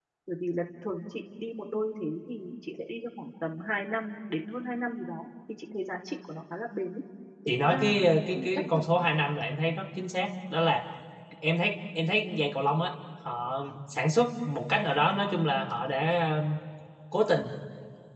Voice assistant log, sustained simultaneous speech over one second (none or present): present